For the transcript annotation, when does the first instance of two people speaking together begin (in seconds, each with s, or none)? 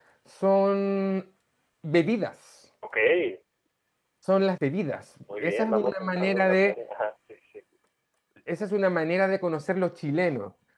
5.3 s